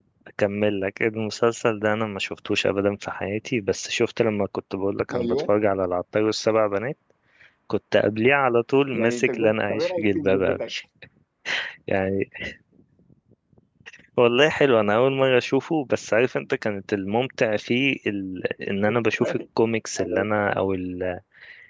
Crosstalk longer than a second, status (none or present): present